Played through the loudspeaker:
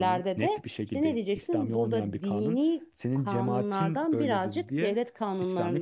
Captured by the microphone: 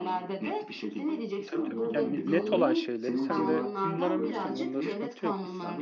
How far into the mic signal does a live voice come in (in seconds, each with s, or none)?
1.4 s